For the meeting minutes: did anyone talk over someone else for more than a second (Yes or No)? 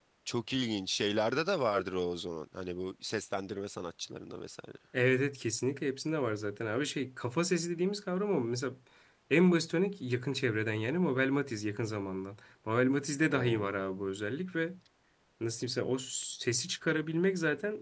No